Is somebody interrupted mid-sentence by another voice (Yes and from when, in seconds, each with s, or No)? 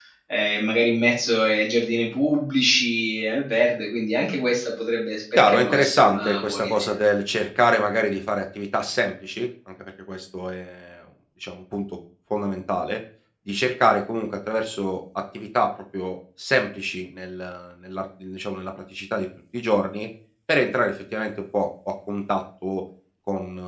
Yes, from 5.3 s